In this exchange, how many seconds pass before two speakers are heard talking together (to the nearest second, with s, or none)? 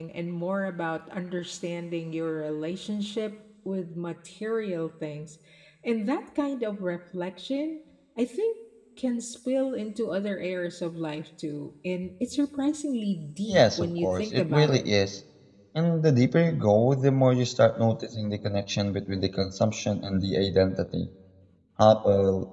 13 s